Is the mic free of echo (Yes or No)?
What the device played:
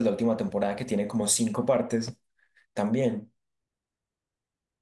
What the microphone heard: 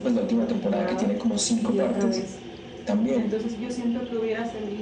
No